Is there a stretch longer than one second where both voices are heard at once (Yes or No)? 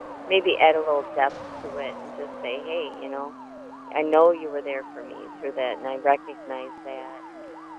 No